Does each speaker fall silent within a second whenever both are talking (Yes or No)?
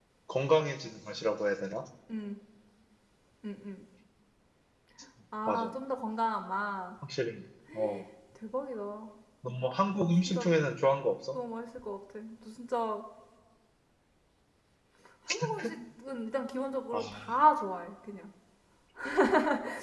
Yes